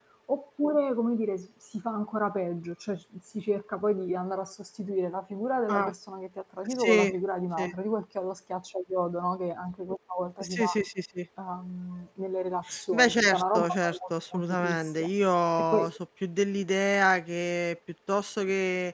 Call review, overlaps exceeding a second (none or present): present